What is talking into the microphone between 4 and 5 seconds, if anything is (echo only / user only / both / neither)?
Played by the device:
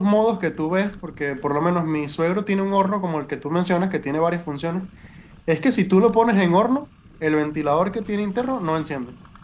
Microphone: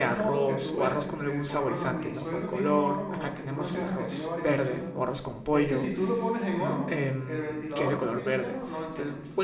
both